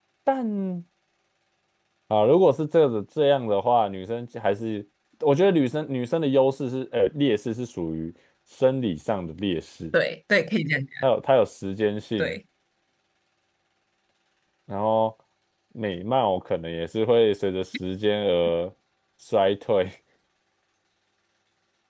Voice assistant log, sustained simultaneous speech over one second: none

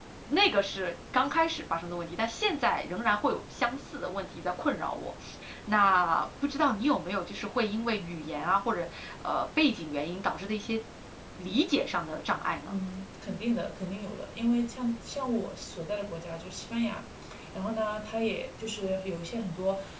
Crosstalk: none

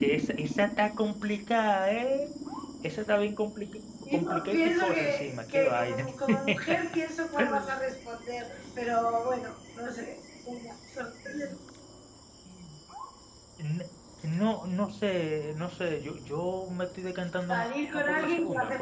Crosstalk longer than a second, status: present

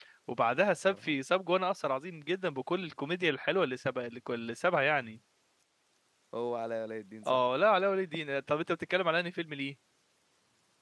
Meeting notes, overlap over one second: none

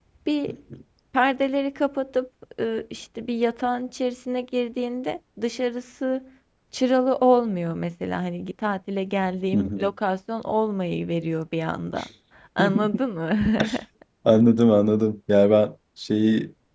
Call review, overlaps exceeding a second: none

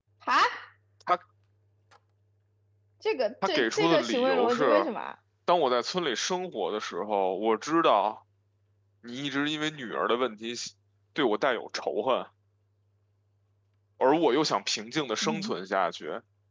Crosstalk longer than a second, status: present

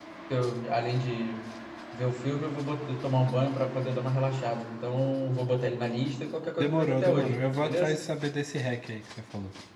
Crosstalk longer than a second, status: present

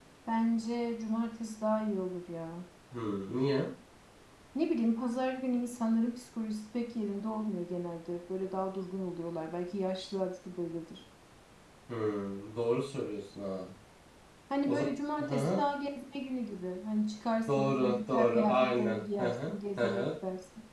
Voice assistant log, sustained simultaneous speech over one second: present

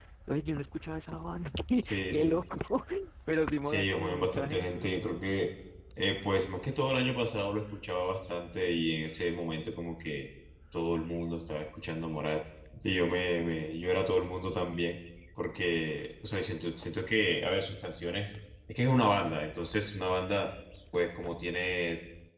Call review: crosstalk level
present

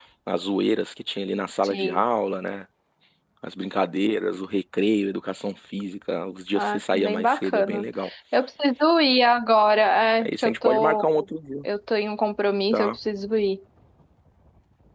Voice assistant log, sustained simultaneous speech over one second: present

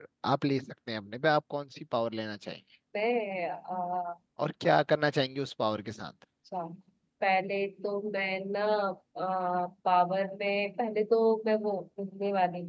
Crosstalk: none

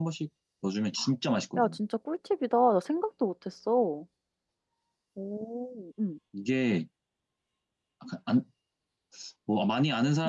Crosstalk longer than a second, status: none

